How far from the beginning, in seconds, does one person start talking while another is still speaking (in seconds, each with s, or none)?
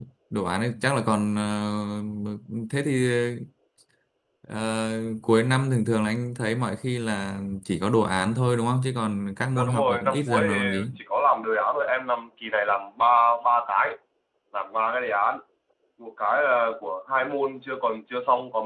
9.6 s